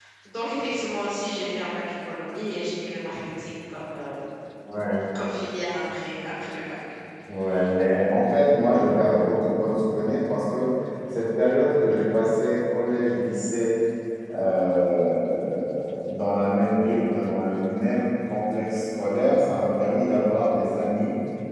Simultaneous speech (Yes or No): No